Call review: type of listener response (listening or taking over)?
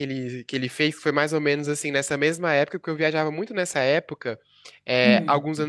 listening